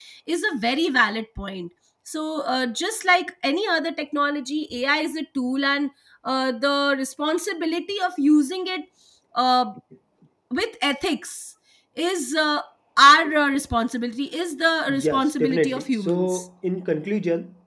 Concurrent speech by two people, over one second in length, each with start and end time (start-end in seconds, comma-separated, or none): 14.9-16.4